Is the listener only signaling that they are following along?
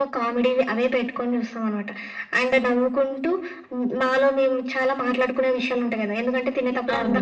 Yes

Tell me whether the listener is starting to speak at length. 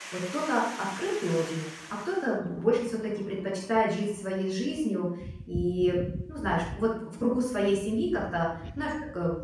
No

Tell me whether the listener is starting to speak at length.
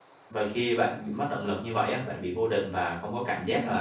No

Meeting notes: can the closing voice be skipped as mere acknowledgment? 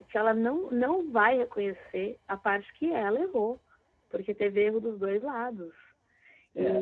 No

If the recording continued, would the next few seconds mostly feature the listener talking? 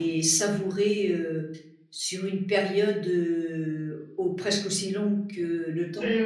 Yes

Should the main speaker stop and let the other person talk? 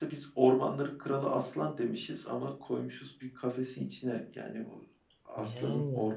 No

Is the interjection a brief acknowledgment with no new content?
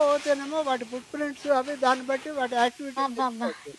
No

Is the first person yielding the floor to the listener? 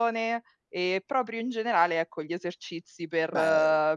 No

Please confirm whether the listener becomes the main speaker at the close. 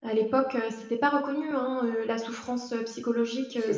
No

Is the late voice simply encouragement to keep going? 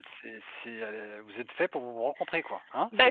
No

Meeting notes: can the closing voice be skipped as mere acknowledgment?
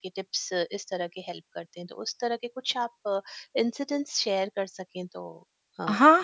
No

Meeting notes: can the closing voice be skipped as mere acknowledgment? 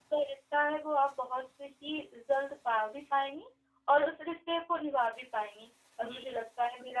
Yes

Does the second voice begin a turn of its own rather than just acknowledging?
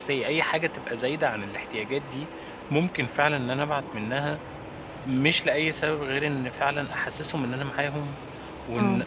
No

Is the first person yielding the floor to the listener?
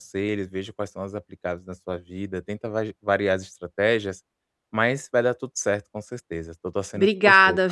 Yes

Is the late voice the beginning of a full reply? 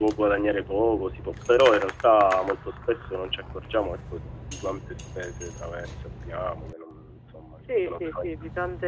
Yes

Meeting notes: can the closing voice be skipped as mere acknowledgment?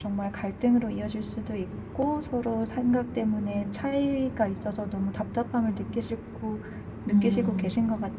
No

